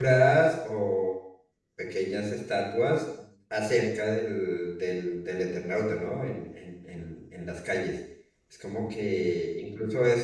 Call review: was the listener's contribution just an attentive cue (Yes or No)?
Yes